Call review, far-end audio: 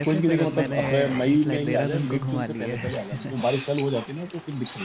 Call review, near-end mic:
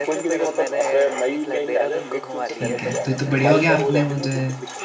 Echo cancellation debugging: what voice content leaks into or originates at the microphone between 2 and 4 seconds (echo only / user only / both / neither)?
both